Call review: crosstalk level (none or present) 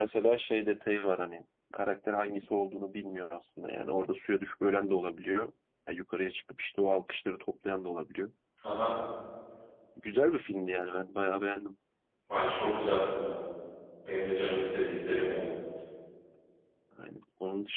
none